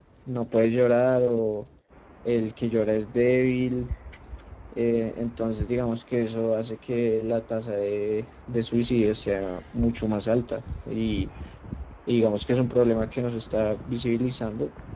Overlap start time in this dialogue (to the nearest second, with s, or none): none